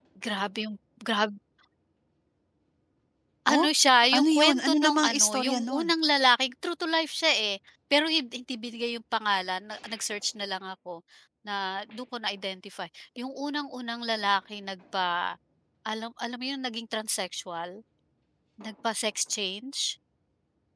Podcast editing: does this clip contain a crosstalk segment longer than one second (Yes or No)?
Yes